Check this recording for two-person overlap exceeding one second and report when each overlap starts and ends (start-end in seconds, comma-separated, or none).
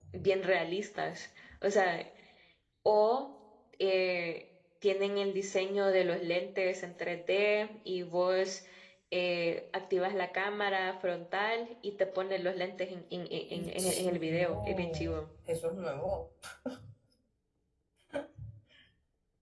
13.5-15.1